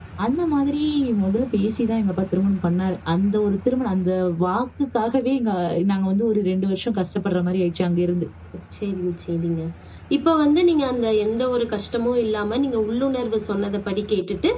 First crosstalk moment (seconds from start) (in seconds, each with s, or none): none